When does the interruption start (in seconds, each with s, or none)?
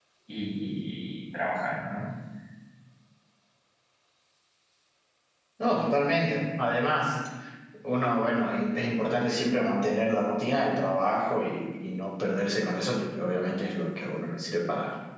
none